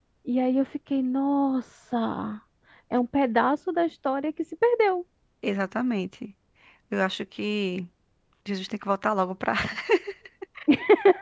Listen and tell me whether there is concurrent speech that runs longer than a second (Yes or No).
No